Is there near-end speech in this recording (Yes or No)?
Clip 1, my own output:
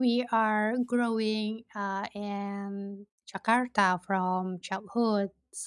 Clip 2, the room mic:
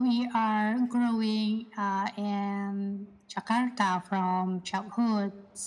No